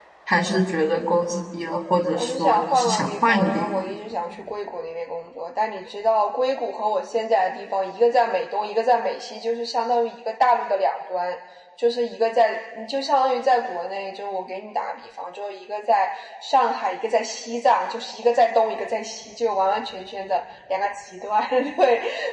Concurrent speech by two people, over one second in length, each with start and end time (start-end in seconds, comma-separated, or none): 2.2-3.9